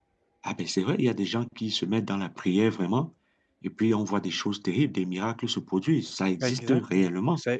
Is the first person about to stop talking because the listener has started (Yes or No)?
Yes